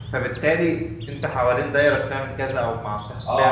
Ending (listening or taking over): taking over